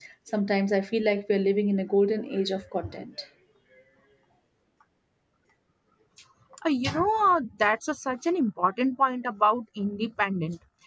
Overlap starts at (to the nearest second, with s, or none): none